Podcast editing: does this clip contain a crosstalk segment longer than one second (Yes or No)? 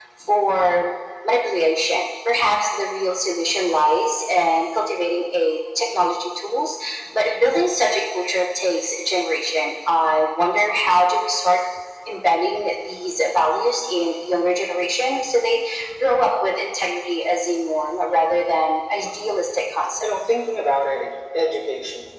No